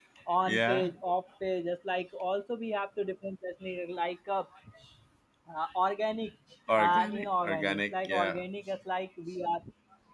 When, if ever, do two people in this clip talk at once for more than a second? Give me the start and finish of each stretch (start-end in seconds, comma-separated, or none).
6.8-8.4